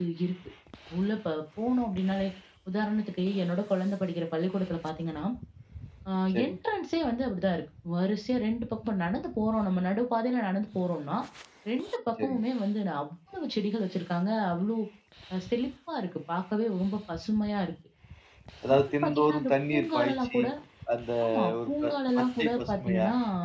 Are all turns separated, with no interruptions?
No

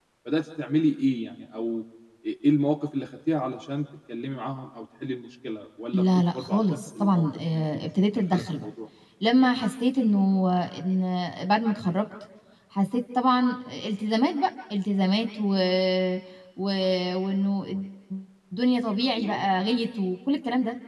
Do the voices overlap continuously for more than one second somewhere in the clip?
Yes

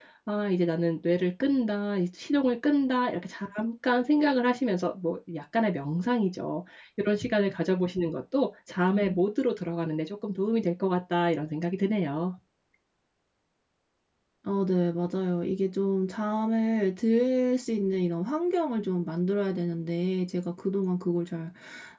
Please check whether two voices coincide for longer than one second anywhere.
No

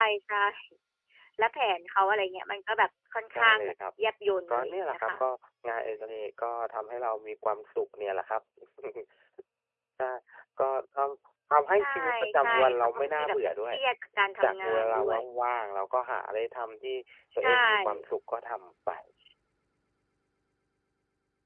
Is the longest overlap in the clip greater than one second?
Yes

